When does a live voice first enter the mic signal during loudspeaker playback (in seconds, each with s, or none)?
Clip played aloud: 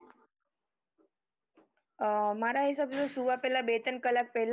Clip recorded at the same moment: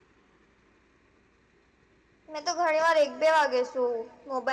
2.3 s